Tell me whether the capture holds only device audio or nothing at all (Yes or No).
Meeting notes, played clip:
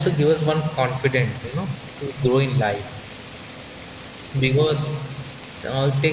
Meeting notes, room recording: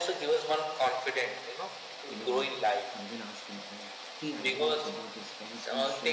No